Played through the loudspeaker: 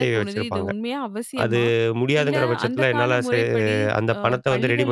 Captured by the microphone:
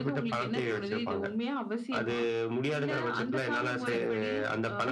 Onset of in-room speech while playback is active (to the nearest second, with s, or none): 4 s